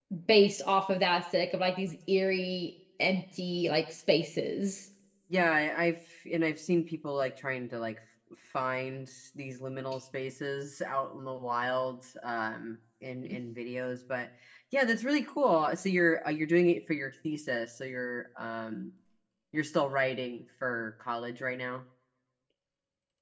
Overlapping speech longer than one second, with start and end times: none

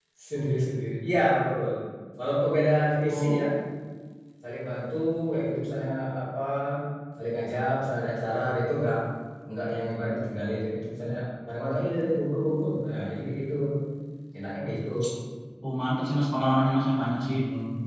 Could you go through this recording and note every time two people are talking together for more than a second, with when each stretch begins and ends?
none

